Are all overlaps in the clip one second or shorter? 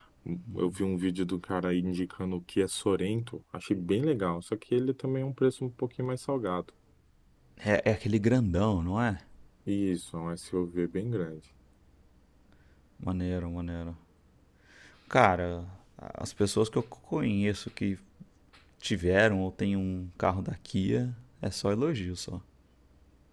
Yes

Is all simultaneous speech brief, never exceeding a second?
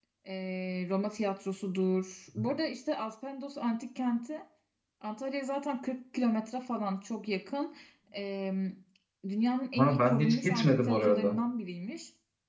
No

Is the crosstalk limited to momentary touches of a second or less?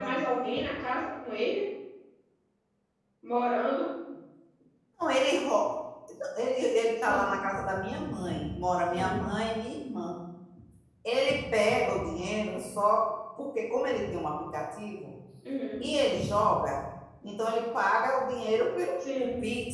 Yes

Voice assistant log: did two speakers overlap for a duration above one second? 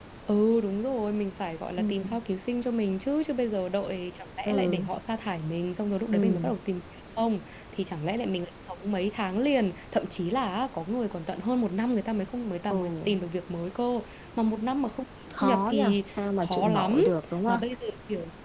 Yes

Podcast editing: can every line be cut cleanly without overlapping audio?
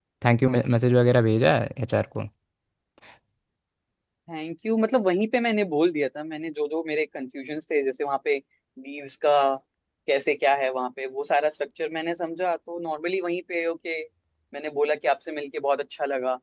Yes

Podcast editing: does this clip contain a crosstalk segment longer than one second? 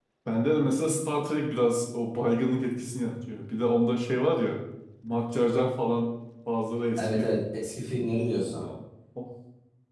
No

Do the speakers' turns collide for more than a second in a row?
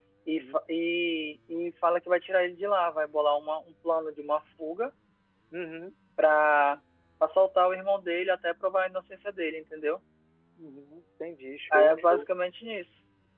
No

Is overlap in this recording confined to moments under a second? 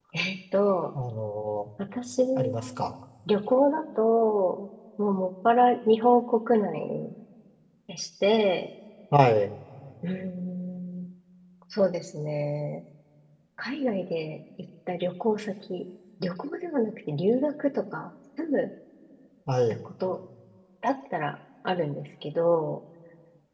Yes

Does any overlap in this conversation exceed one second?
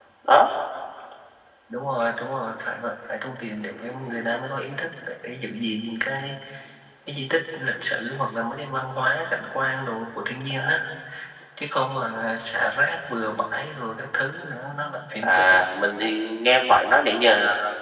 No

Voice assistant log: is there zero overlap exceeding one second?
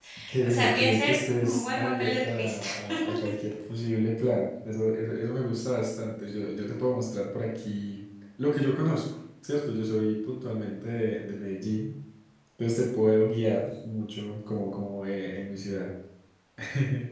No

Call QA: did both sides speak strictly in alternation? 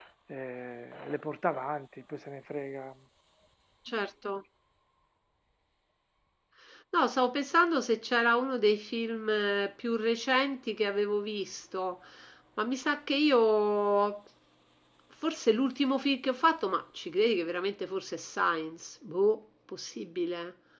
Yes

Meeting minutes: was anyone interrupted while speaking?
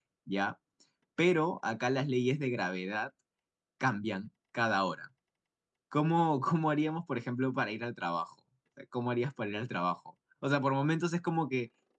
No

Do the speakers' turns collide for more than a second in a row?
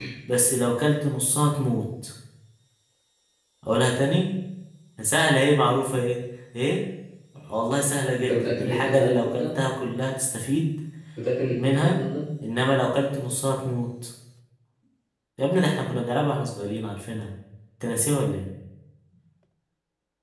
Yes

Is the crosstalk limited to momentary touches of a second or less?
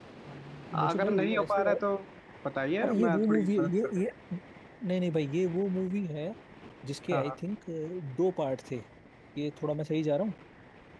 No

